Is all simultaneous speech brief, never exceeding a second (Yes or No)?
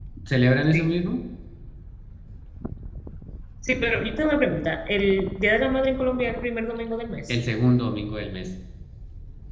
Yes